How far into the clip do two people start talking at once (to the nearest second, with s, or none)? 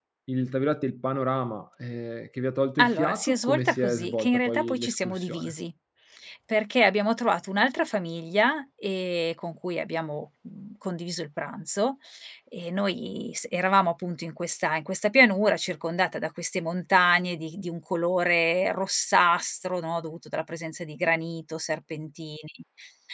3 s